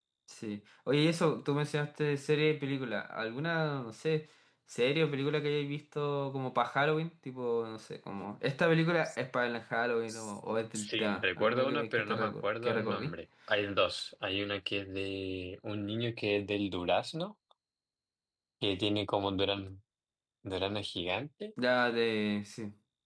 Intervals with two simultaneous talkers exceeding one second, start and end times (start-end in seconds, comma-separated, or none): 10.8-13.2